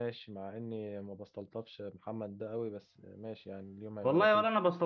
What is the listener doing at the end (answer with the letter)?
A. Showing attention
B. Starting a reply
B